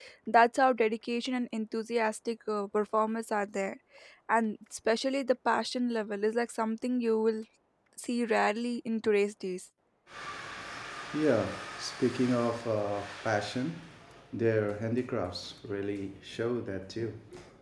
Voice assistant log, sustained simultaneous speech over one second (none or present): none